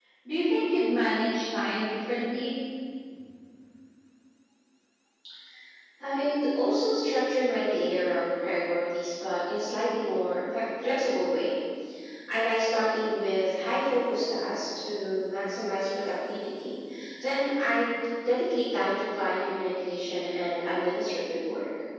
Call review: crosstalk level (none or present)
none